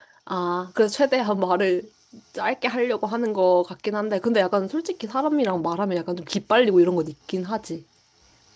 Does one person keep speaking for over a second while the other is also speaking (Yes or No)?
No